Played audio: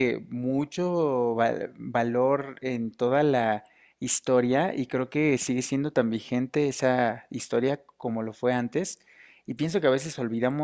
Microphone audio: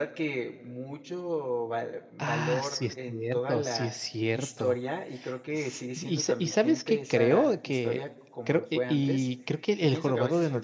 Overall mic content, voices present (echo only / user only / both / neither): both